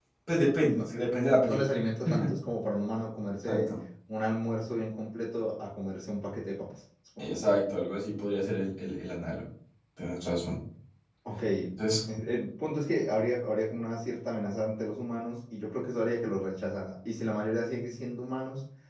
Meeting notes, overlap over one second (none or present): none